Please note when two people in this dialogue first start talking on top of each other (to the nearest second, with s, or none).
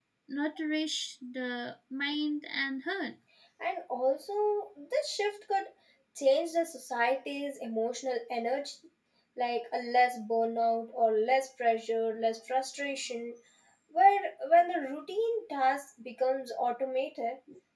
none